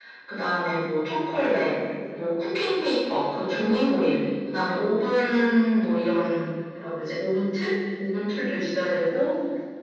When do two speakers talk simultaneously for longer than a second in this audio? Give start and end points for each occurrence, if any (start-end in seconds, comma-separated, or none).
none